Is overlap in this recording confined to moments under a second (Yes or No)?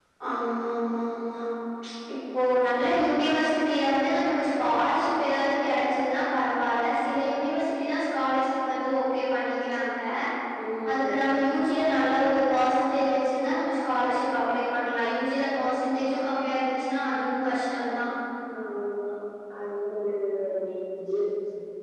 Yes